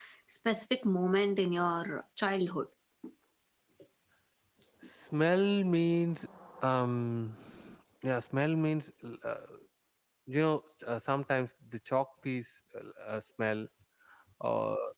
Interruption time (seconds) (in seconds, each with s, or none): none